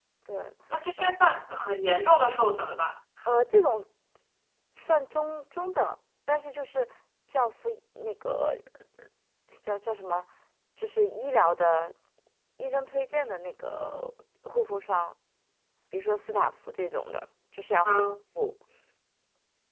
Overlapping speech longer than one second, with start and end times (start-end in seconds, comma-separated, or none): none